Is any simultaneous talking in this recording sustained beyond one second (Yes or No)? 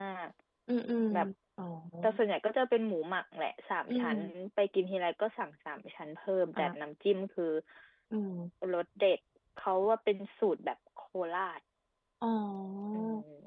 No